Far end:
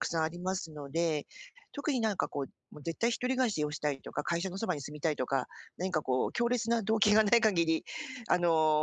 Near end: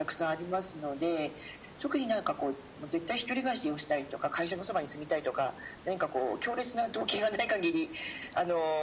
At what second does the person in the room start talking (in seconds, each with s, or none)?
none